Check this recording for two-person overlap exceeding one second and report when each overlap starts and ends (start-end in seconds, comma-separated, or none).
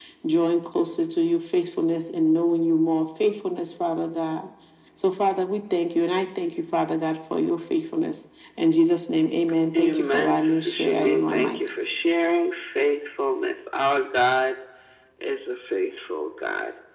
9.8-11.6